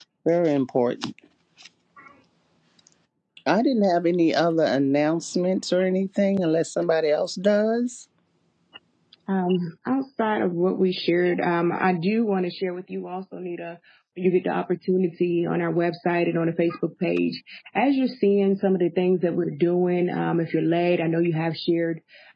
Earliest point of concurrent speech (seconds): none

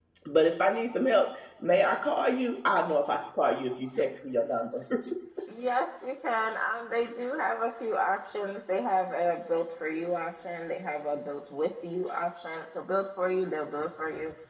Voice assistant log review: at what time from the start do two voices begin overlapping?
none

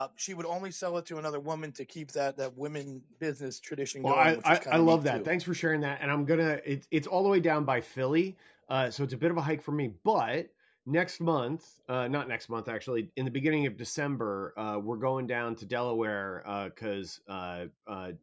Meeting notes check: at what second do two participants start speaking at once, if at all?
4.0 s

